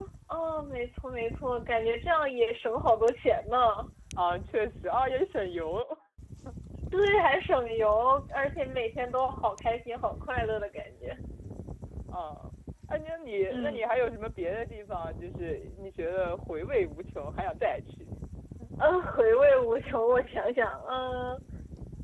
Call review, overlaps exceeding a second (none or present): none